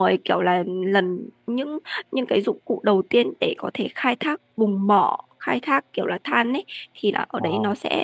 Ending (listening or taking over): listening